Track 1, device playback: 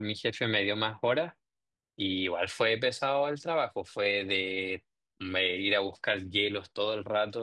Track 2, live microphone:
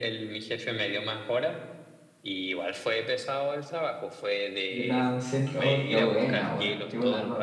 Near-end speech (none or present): present